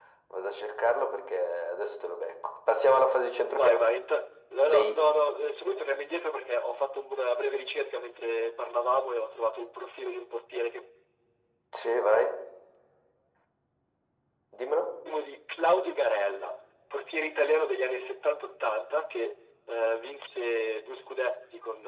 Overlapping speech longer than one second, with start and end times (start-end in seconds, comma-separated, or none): none